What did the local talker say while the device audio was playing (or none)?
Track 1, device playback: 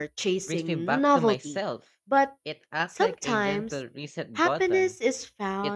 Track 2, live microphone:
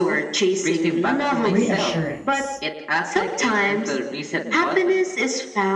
reassurance.